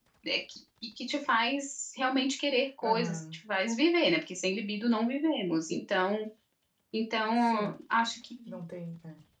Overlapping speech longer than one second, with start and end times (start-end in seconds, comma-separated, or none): none